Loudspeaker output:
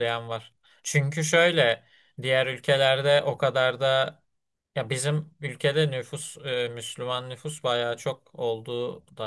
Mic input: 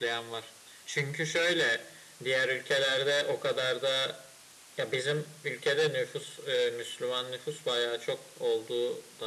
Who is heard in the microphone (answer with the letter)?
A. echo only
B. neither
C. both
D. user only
A